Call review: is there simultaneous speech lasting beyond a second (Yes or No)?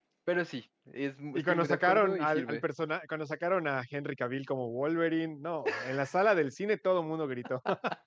Yes